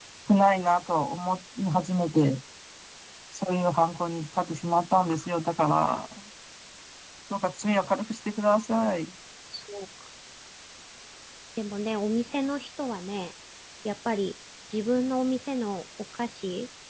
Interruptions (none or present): none